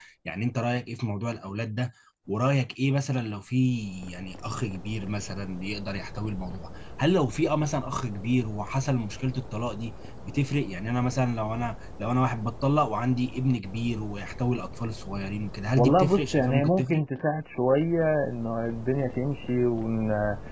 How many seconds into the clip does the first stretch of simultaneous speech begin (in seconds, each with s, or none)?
15.8 s